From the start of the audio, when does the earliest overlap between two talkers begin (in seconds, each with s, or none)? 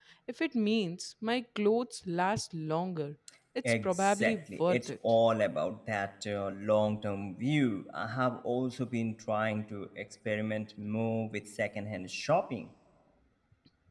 3.6 s